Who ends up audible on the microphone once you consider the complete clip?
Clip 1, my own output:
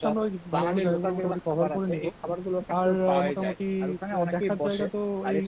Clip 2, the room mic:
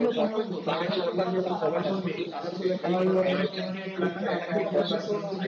both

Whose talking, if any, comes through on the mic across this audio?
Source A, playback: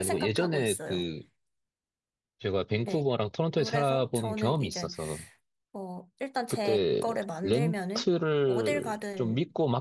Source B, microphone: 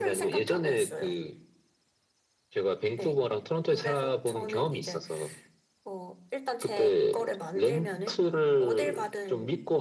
echo only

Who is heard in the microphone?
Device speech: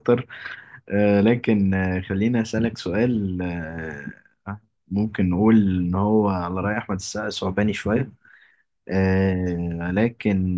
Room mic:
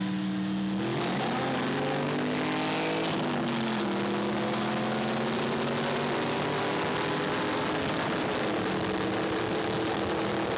neither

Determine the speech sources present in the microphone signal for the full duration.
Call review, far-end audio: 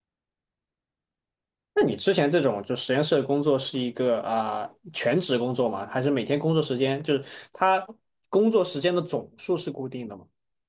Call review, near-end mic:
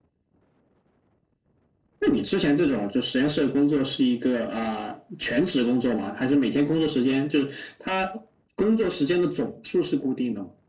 echo only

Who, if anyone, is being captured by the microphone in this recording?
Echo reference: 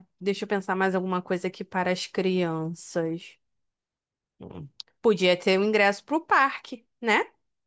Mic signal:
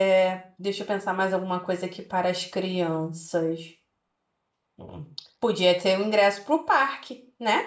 echo only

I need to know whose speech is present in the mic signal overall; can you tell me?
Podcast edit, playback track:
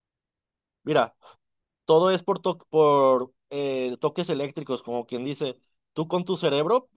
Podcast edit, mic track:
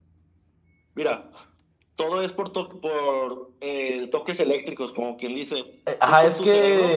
both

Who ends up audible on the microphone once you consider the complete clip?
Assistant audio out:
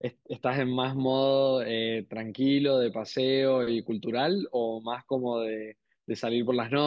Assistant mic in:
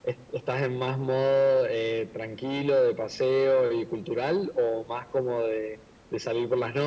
echo only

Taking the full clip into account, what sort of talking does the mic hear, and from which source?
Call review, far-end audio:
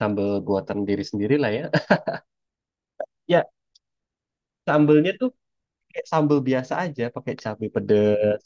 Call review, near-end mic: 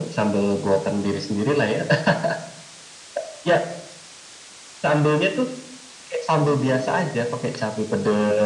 both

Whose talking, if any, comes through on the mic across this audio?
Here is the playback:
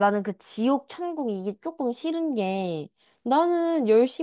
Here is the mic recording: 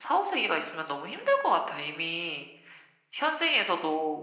user only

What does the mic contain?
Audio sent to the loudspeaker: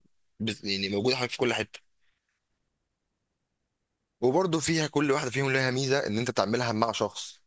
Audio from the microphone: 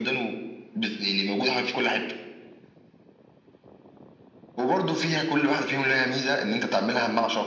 echo only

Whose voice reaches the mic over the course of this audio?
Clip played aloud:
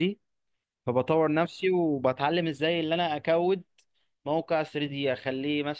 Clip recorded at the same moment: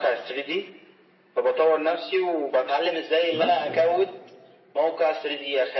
both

